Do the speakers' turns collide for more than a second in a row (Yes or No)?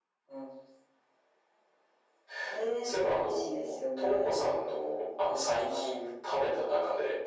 Yes